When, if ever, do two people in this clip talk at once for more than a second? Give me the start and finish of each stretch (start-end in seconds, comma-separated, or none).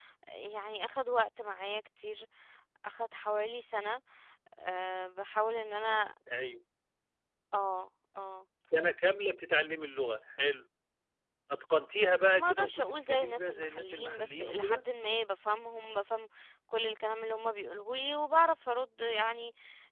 12.3-14.8